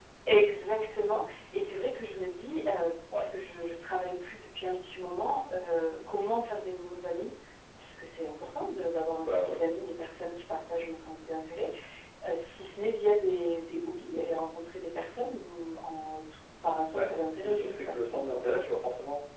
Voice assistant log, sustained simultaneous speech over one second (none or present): present